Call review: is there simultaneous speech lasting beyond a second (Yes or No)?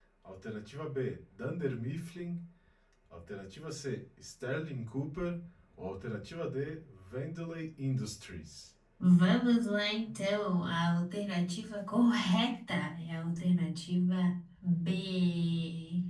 No